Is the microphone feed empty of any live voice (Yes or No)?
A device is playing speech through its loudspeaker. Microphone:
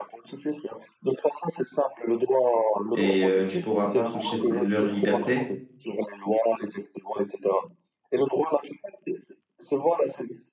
No